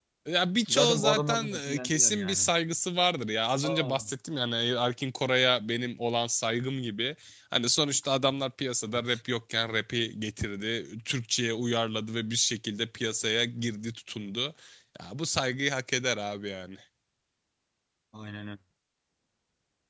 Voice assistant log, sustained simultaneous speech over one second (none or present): present